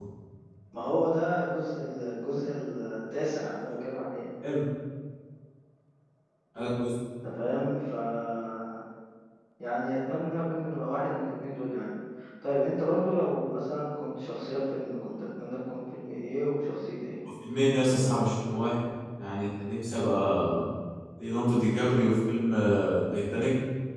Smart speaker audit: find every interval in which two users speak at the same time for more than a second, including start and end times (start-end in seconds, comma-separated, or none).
none